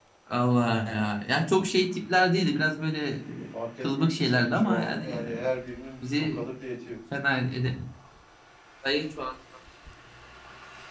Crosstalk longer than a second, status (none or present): present